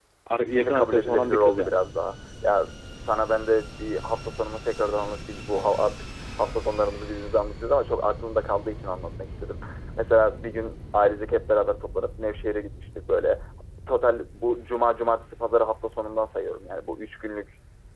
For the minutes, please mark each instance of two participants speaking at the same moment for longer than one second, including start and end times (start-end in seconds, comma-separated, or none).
0.5-1.8